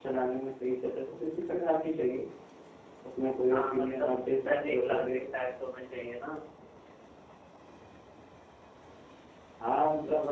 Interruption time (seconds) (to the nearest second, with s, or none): 4 s